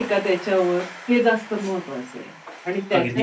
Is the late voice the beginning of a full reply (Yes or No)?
No